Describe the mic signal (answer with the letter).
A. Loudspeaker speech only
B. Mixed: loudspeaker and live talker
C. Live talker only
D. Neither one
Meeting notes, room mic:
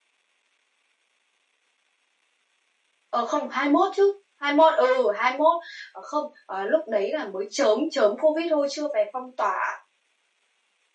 C